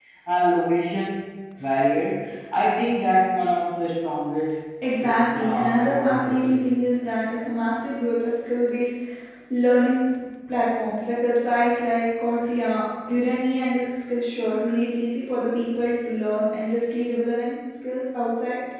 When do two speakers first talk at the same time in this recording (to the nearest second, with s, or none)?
5 s